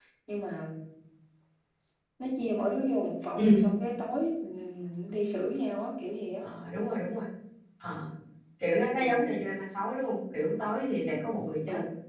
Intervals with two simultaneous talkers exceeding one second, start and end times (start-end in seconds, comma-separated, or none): none